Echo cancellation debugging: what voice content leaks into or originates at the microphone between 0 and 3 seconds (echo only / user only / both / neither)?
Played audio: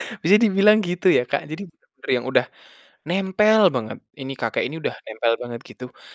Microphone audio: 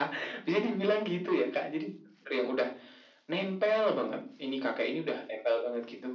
echo only